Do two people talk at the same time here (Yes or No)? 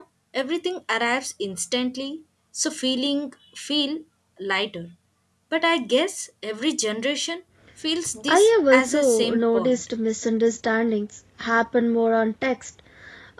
Yes